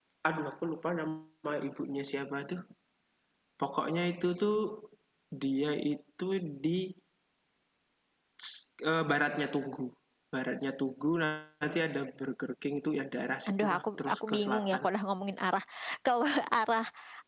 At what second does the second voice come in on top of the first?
13.5 s

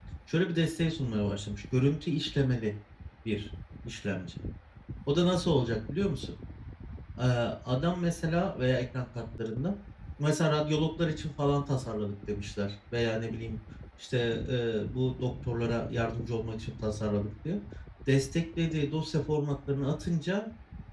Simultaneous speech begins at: none

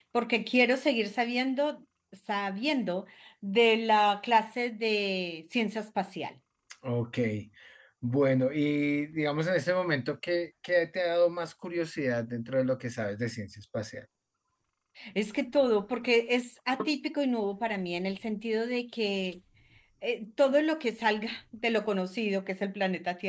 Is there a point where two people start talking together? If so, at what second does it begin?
none

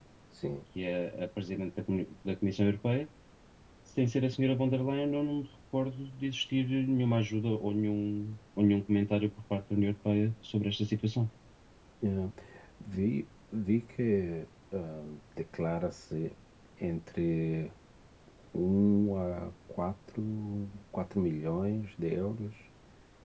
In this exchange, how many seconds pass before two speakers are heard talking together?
none

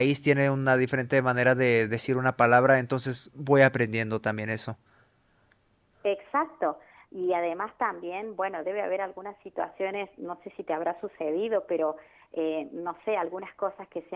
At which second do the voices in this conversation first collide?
none

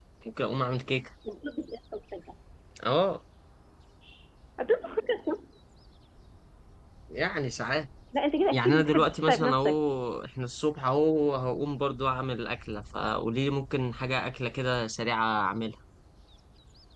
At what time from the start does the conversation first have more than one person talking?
8.5 s

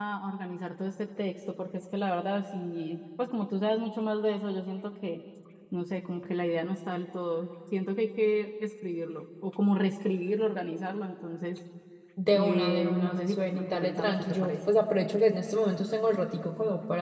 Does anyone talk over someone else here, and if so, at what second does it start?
12.3 s

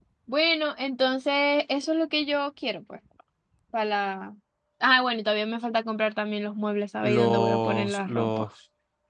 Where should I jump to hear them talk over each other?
7.0 s

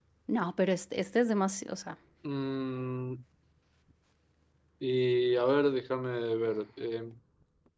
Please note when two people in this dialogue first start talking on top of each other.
none

